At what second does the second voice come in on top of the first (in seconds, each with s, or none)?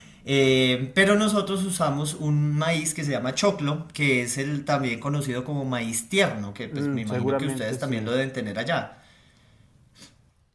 6.7 s